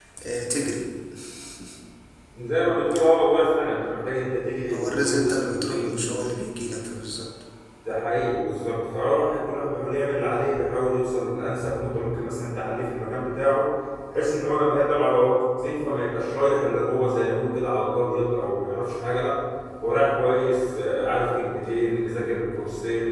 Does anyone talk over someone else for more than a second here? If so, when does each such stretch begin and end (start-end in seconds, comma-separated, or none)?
4.7-6.1